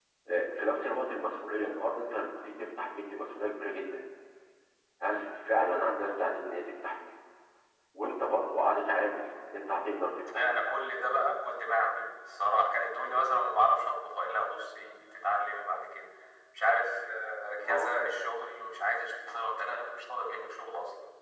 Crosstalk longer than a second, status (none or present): none